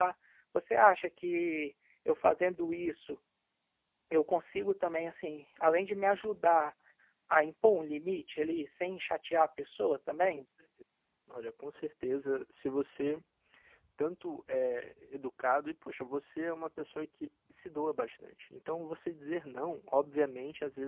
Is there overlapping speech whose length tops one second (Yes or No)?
No